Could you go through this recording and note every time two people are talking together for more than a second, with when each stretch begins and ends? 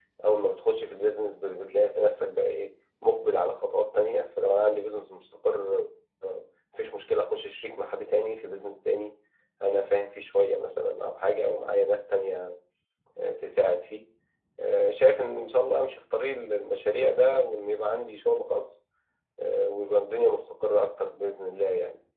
none

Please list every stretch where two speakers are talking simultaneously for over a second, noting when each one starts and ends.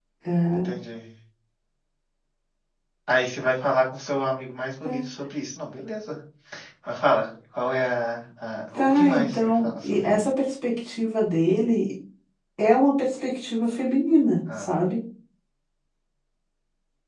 8.7-10.3

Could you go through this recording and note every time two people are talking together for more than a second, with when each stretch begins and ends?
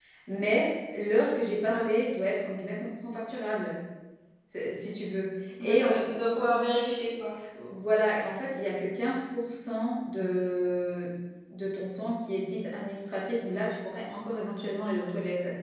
none

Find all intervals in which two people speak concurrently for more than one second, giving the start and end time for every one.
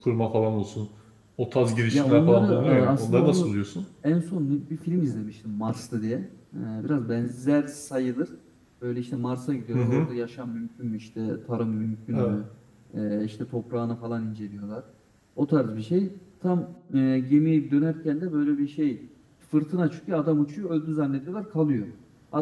1.9-3.5

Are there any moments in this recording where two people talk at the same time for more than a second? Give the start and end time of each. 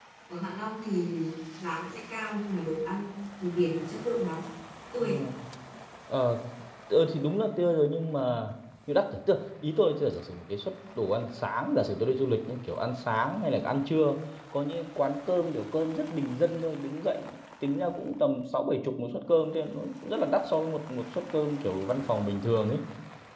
none

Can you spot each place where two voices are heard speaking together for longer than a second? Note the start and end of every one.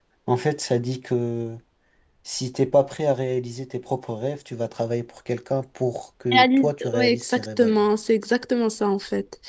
6.3-7.8

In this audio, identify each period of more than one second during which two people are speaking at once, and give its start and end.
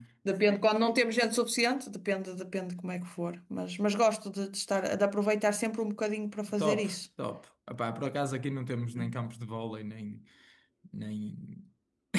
none

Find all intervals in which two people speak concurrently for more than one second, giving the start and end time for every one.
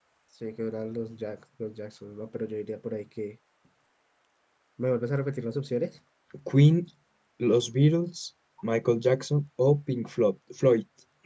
none

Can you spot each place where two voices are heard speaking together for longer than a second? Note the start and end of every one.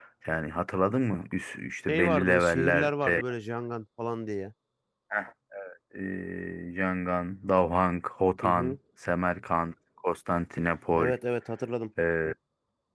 1.9-3.2

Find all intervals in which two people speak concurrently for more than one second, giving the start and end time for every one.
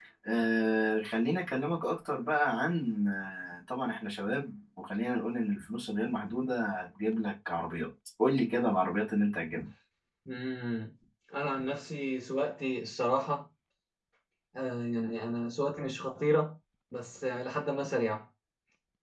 none

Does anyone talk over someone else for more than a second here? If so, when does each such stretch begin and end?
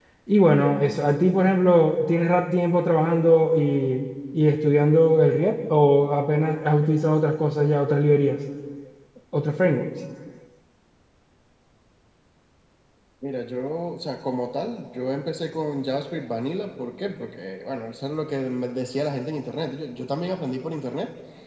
none

